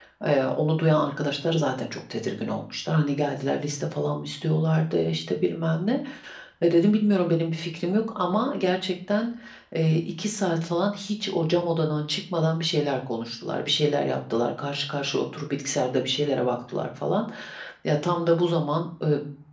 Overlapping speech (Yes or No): No